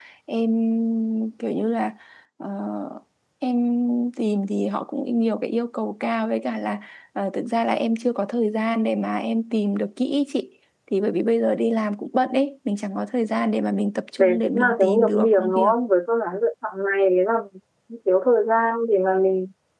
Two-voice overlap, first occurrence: 14.2 s

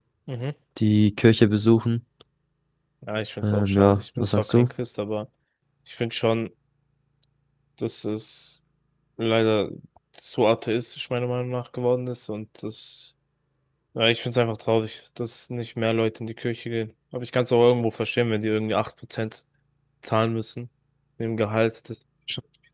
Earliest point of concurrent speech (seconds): 3.4 s

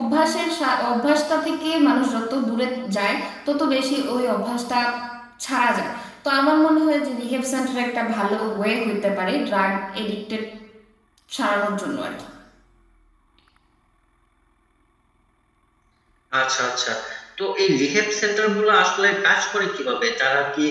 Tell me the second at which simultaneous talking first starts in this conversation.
none

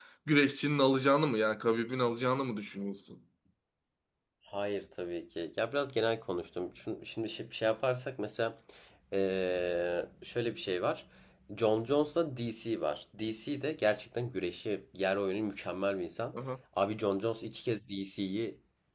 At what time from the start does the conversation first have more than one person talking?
none

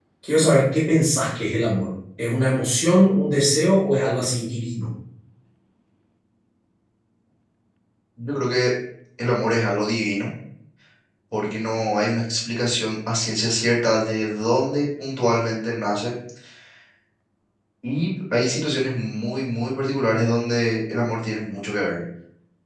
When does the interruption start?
none

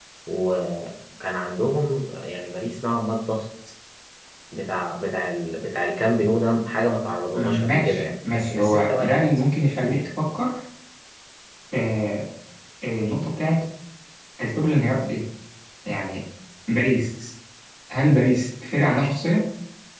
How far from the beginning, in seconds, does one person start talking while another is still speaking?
7.6 s

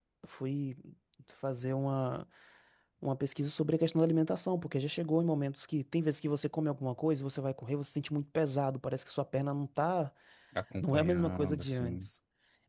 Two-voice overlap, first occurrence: 10.8 s

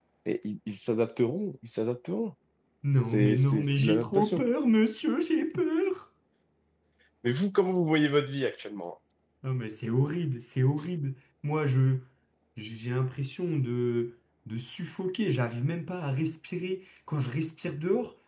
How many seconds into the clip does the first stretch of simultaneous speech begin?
3.1 s

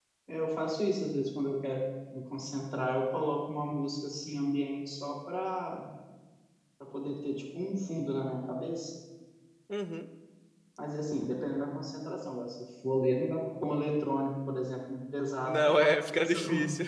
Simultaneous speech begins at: 15.4 s

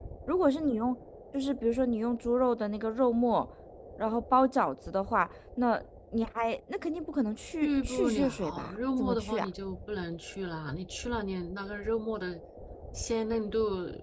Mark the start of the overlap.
7.6 s

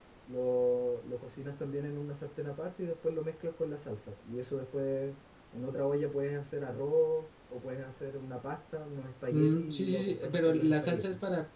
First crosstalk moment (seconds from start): 9.3 s

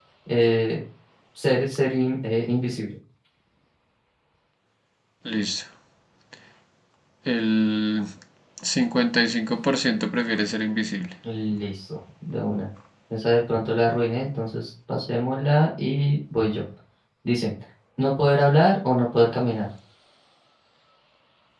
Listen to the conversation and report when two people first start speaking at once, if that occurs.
none

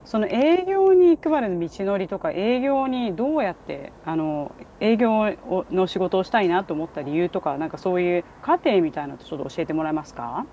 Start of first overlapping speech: none

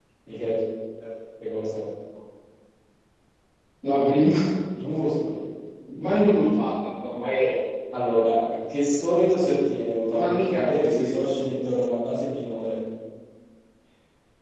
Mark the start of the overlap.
10.1 s

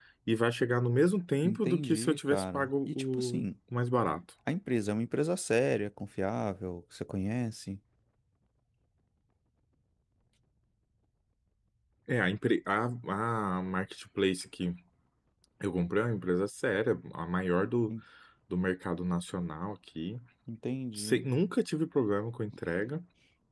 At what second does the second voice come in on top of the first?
1.4 s

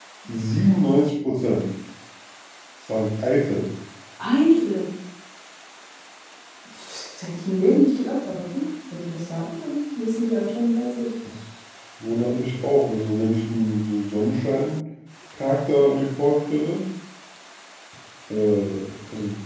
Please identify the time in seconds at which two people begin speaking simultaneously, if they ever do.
none

